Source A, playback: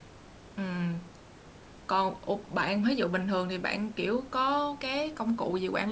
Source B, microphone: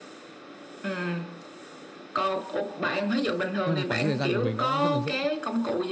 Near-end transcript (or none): nên là quản lý thời gian của mình nó rất là dễ